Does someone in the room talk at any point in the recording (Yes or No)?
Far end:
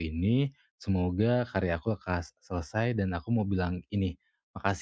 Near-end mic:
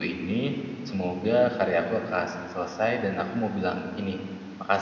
No